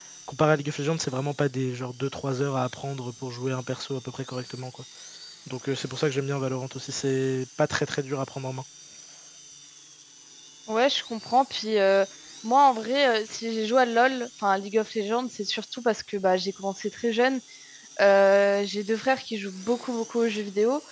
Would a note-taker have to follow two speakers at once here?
No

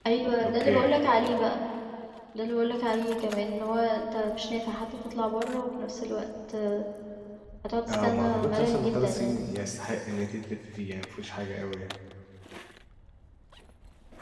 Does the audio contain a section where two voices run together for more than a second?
Yes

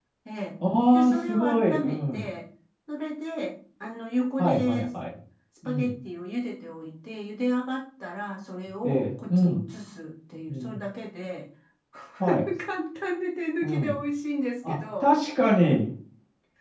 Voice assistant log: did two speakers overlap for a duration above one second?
Yes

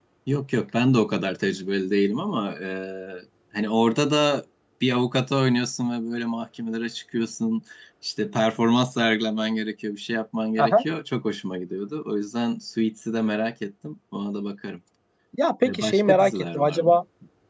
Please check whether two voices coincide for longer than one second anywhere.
Yes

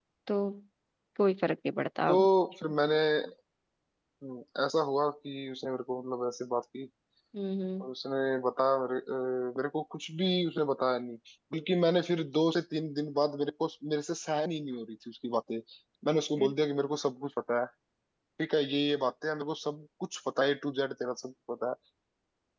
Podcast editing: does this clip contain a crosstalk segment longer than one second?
No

